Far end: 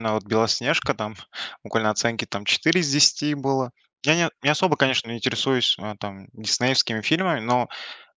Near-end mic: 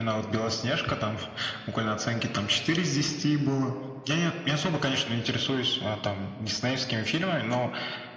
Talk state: echo only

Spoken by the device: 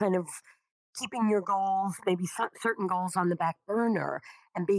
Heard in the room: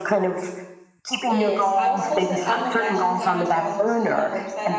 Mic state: both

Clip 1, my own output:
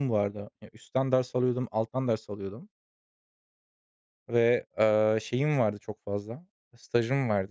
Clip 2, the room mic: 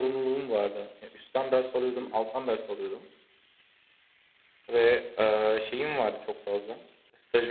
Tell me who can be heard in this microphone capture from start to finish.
both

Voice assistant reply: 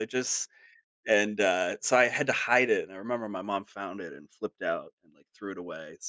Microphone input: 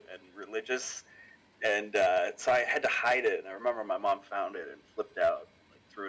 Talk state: echo only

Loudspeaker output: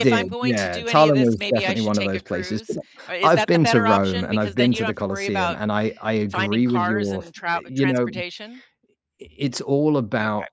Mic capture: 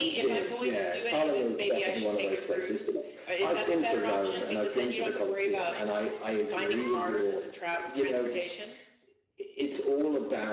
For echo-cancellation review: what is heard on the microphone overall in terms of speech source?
both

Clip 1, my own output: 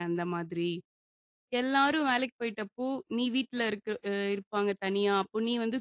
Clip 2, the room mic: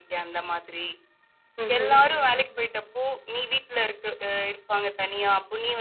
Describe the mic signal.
both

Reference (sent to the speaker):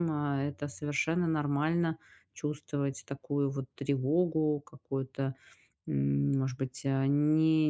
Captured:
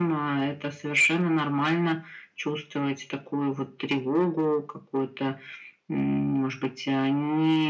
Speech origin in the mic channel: echo only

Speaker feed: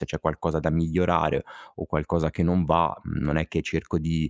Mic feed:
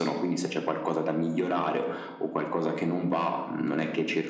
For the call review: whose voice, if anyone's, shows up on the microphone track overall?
echo only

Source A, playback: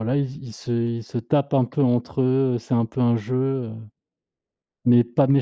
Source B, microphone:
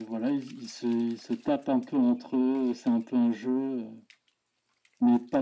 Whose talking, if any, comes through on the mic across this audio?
echo only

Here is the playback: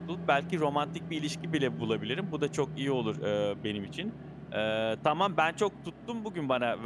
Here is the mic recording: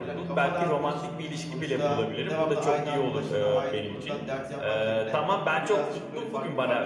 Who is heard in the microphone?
both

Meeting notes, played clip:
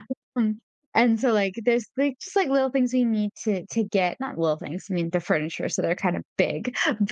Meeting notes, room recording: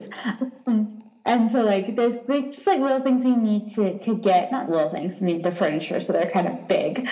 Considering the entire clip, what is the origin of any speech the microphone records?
echo only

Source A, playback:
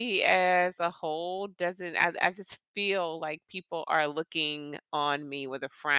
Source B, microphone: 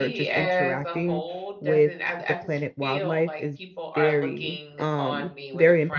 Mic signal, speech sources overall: both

